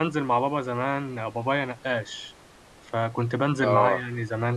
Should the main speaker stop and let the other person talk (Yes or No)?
No